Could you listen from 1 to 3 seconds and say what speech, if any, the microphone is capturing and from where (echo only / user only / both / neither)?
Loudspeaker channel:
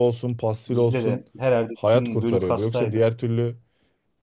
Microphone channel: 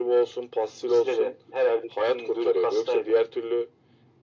echo only